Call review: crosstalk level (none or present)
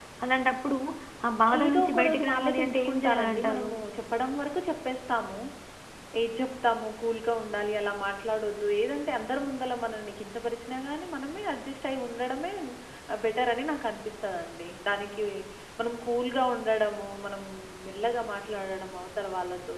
present